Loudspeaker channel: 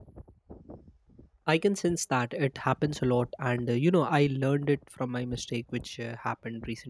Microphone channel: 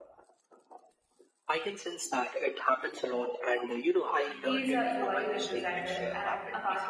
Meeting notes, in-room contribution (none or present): present